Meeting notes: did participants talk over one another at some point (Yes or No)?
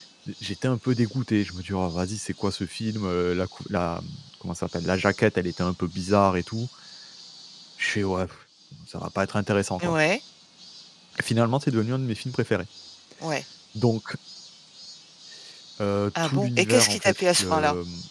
Yes